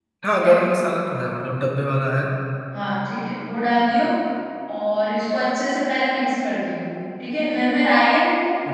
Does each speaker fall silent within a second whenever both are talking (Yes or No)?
Yes